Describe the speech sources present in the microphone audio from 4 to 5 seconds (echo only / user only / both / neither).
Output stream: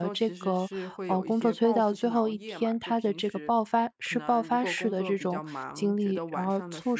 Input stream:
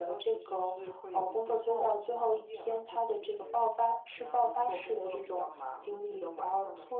echo only